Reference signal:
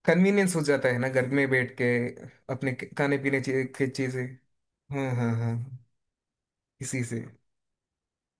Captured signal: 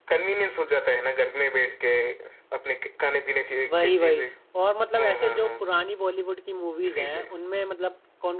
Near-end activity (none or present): present